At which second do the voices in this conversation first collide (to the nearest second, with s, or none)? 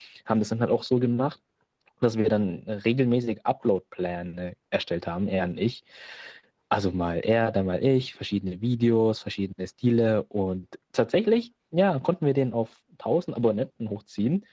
none